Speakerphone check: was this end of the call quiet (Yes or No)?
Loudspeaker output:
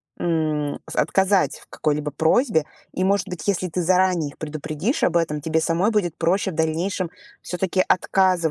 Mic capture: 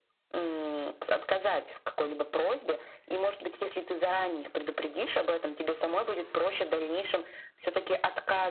Yes